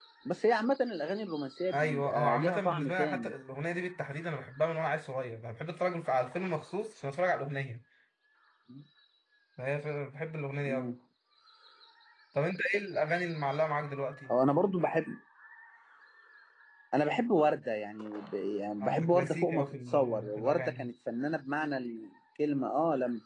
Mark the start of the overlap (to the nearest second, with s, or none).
2 s